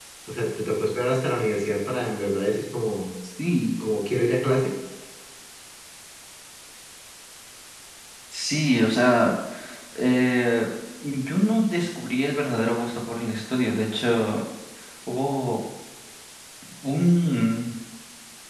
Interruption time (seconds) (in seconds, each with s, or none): none